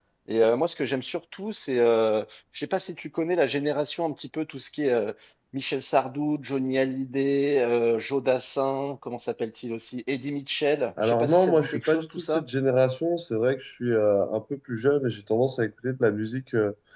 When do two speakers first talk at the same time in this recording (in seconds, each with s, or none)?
11.0 s